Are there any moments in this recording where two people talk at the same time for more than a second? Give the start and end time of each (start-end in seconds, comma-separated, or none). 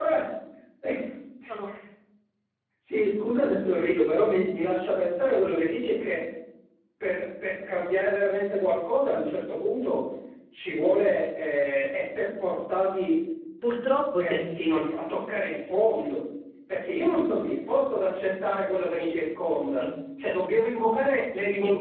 none